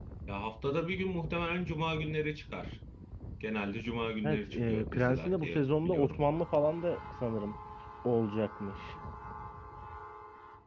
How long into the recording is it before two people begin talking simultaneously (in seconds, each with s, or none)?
4.2 s